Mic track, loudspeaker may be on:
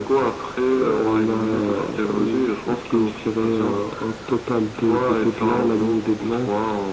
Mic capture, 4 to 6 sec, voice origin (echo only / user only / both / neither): echo only